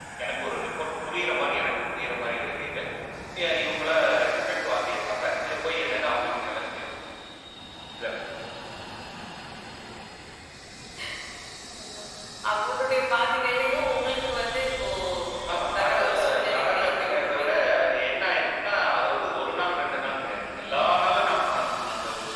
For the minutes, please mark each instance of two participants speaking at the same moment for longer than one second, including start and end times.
15.8-17.6

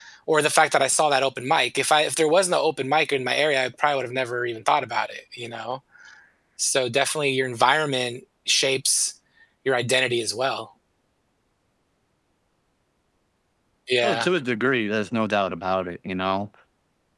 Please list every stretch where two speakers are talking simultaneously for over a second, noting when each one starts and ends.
none

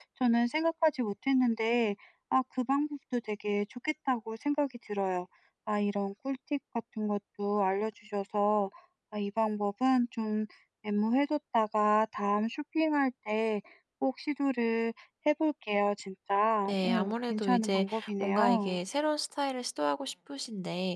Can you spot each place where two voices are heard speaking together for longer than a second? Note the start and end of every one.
16.8-18.8

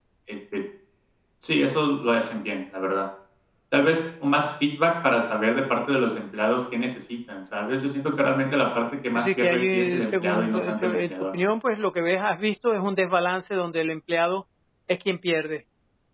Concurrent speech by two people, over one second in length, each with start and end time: 9.1-11.1

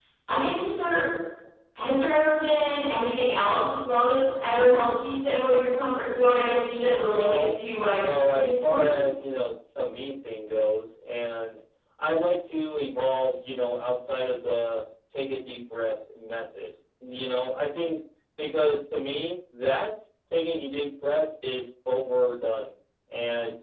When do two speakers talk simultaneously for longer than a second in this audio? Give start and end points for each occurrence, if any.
6.9-8.9

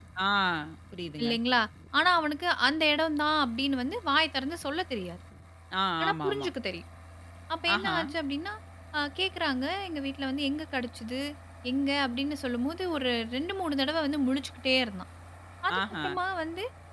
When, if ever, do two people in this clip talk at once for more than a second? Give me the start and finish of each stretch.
none

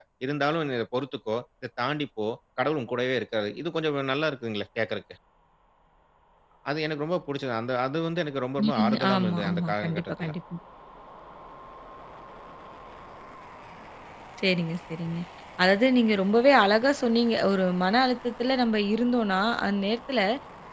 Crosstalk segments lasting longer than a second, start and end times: 8.6-10.3

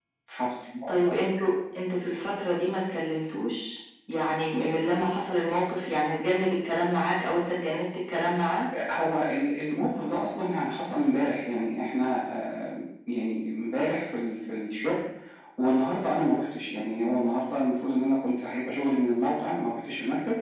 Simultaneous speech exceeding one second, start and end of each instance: none

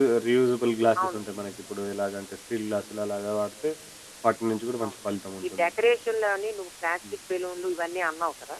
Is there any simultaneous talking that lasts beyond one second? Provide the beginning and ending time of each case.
none

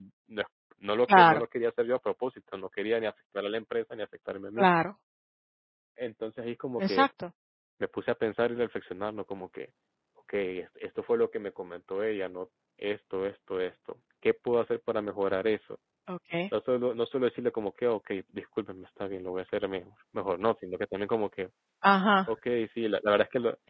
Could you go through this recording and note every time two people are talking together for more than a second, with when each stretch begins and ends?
none

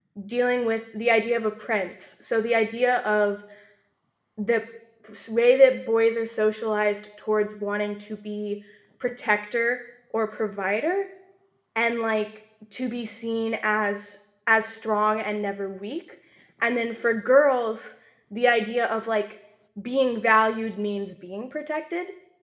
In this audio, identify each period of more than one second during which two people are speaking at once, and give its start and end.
none

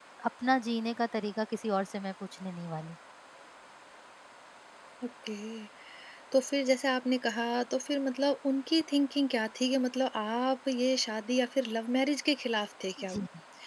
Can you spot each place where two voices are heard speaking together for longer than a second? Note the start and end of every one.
none

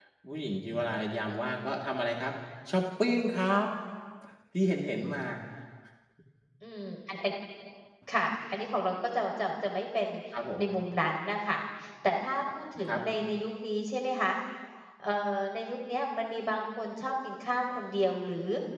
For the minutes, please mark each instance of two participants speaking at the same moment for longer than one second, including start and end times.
none

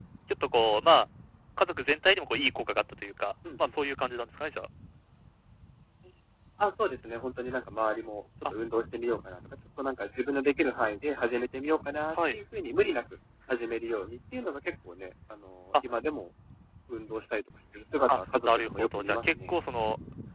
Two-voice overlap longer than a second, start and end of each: 18.1-19.5

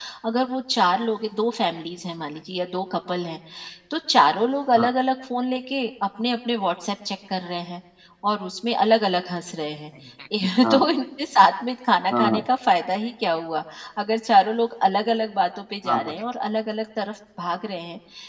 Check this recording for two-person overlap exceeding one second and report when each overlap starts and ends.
none

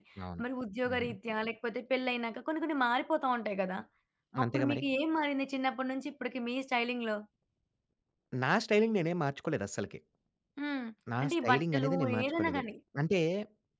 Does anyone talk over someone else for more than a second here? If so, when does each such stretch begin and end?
11.2-12.6

